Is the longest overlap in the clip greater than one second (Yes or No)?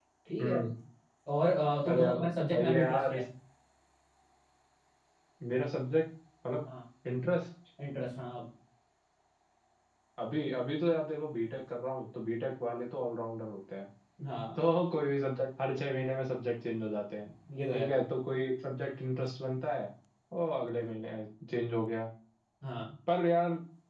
Yes